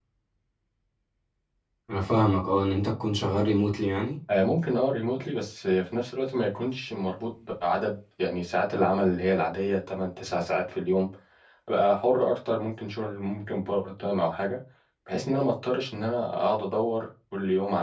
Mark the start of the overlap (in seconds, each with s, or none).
none